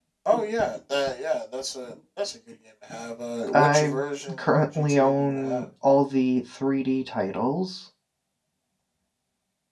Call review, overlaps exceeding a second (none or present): present